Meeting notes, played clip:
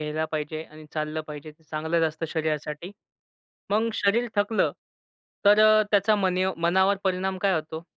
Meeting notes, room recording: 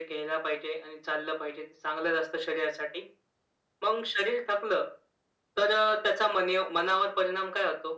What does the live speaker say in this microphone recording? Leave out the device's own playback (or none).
none